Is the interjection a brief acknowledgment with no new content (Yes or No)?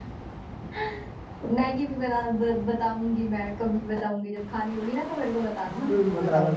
No